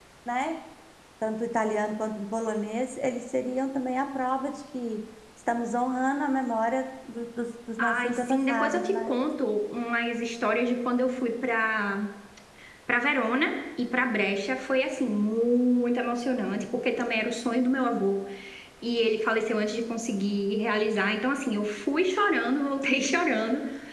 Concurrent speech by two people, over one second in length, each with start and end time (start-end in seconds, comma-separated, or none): 7.8-9.1